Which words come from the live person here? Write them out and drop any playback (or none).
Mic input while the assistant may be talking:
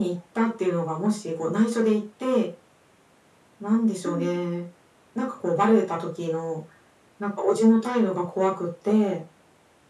うん。